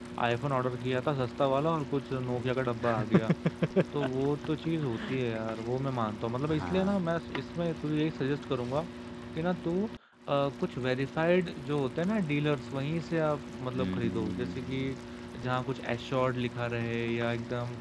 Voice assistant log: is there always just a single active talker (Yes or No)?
No